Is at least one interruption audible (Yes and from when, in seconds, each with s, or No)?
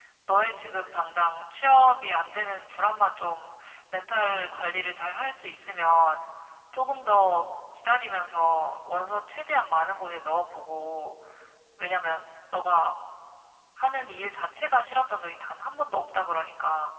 No